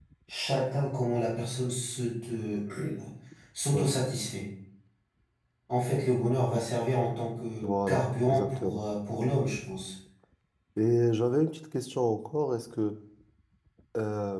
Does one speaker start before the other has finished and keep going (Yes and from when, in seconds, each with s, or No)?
Yes, from 7.6 s